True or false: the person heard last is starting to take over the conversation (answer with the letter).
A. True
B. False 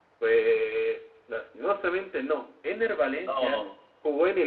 B